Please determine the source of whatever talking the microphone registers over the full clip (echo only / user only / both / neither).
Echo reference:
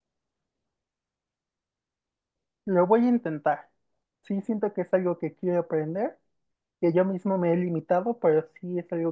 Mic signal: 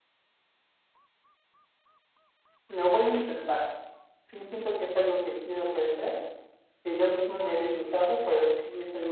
echo only